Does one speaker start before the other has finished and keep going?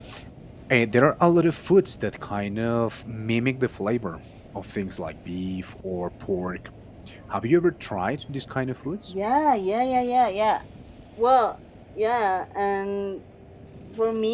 No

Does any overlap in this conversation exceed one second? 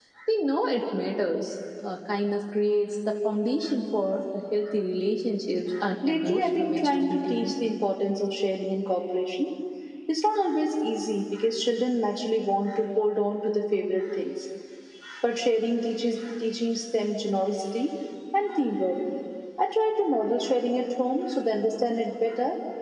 Yes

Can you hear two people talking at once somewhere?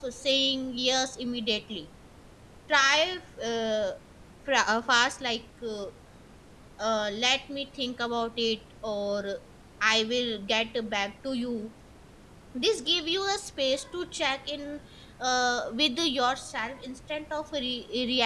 No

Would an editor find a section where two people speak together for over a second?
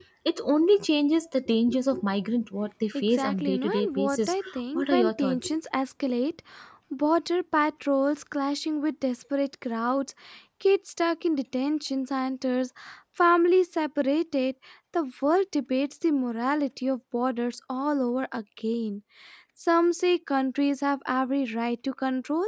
Yes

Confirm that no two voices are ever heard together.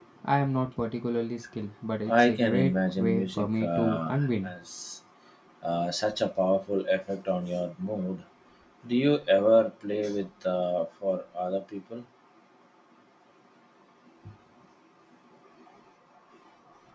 No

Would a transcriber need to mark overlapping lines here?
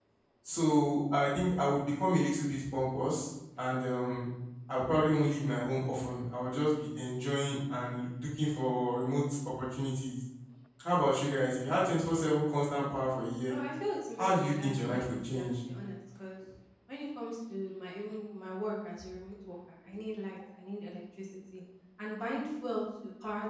Yes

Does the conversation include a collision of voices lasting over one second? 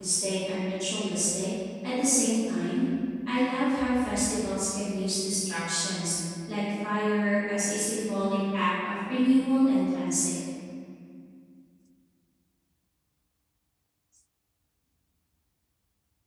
No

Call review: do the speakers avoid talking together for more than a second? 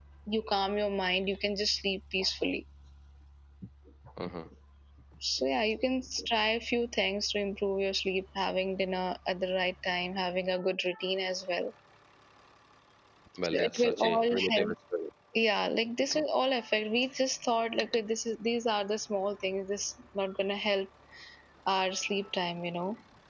No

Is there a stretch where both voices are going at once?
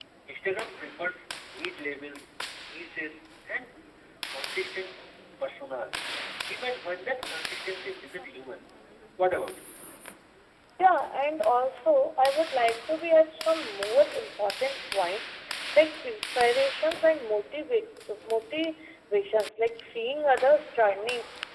No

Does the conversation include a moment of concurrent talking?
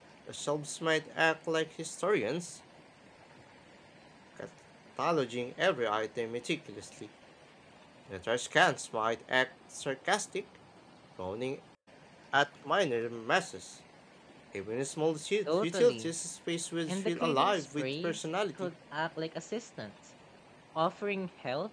Yes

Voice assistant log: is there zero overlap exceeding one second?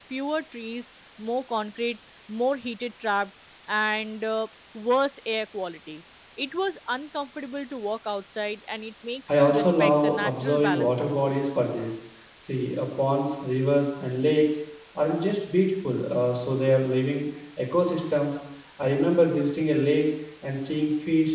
No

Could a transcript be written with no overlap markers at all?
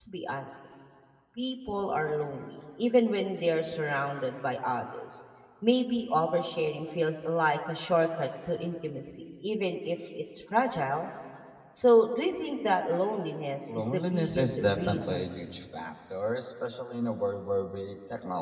No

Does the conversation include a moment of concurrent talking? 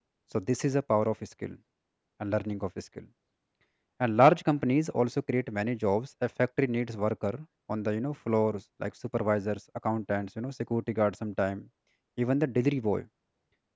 No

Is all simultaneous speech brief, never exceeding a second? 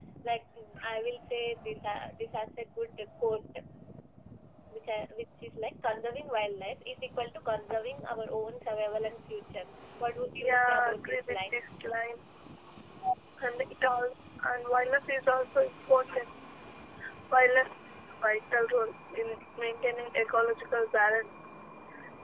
No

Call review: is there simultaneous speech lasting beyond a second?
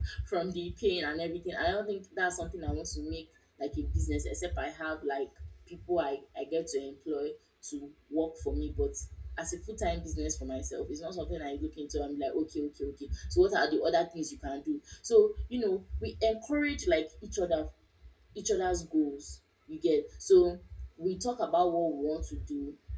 No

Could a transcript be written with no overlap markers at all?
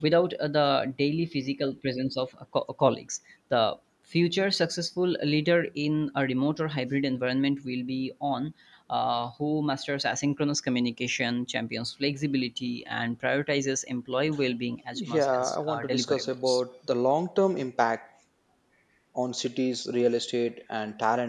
No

